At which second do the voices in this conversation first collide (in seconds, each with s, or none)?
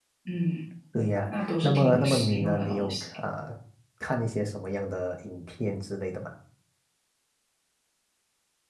1.3 s